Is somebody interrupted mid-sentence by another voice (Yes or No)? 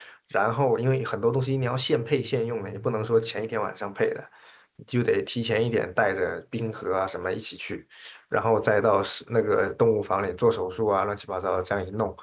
No